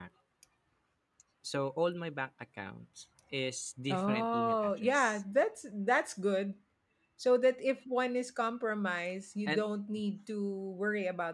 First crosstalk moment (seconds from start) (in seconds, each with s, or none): 3.9 s